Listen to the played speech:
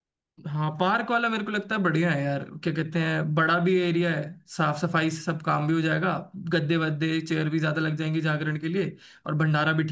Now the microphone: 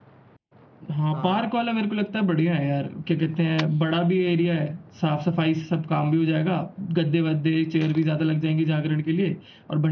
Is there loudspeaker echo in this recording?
Yes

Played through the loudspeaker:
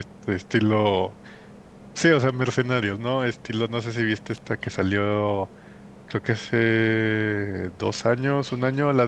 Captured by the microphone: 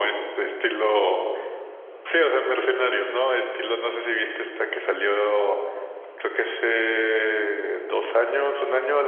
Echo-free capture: No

